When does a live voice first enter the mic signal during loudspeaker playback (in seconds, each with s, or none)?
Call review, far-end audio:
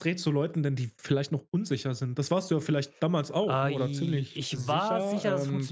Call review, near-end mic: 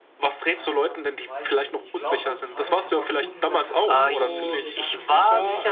0.6 s